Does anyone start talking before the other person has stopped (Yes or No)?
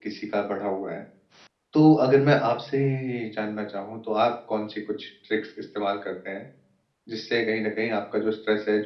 No